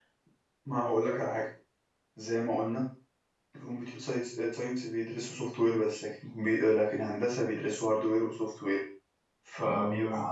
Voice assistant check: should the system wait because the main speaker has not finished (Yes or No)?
Yes